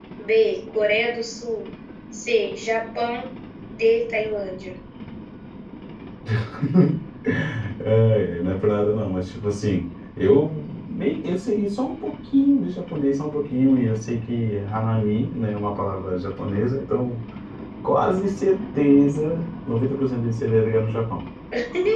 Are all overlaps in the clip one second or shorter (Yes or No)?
Yes